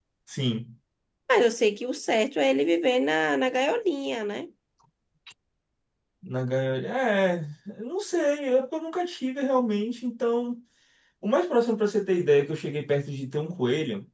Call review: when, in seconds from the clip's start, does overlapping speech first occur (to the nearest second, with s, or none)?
none